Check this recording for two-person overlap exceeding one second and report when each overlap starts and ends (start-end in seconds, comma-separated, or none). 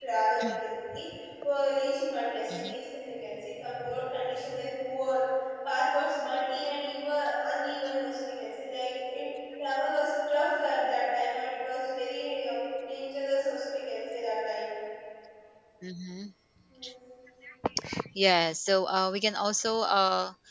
none